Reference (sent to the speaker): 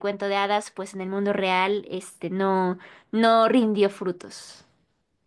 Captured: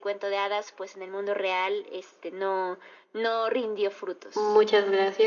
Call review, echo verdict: present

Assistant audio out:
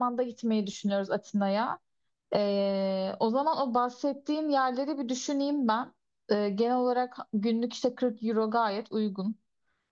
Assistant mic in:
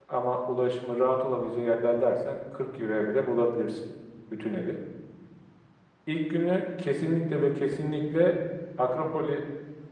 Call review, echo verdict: none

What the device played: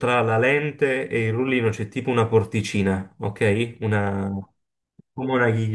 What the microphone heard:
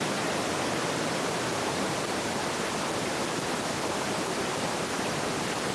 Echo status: none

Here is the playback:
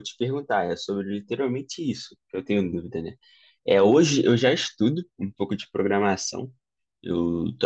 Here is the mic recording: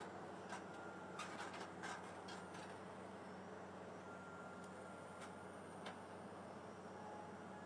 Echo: none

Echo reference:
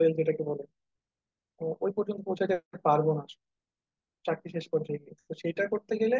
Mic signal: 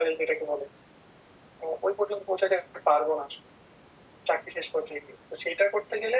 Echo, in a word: present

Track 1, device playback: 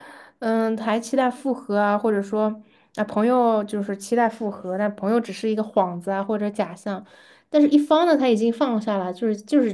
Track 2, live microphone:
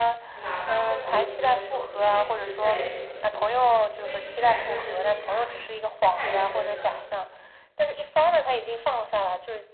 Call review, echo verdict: present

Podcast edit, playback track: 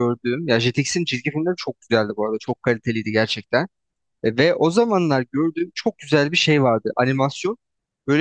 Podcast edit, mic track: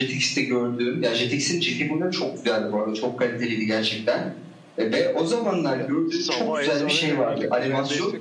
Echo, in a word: present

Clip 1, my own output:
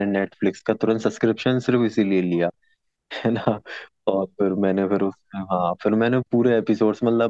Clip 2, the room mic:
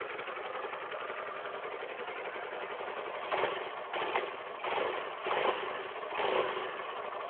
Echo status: none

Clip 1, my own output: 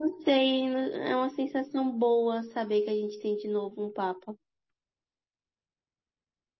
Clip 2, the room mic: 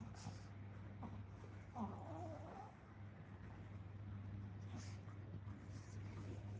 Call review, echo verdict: none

